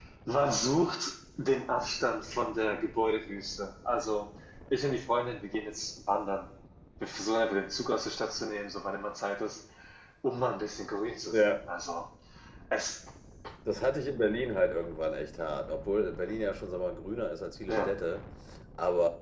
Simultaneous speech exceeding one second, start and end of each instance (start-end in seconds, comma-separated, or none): none